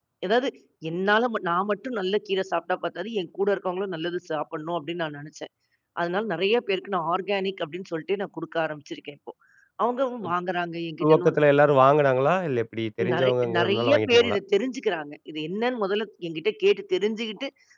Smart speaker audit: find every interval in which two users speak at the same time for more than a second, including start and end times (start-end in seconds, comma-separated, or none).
13.1-14.4